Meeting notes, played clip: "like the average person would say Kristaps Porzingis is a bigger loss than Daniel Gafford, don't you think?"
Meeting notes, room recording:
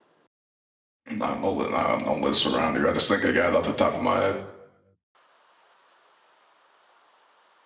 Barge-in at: 1.1 s

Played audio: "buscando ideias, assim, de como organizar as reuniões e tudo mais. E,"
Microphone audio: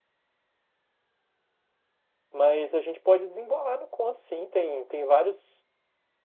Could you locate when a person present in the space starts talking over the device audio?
2.3 s

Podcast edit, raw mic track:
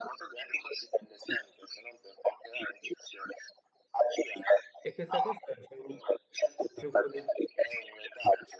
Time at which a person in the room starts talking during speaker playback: 4.8 s

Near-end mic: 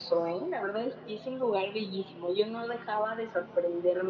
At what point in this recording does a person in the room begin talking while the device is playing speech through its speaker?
none

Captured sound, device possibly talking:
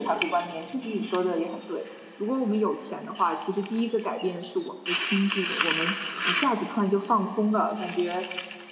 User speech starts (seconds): none

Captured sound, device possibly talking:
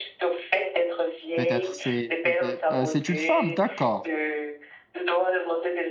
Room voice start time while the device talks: 1.3 s

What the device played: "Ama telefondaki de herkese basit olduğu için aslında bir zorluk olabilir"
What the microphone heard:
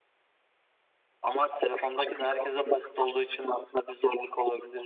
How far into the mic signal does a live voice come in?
none

